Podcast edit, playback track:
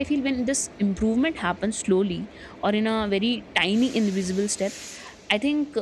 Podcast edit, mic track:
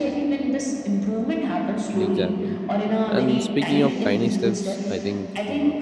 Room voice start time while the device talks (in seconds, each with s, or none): 2.0 s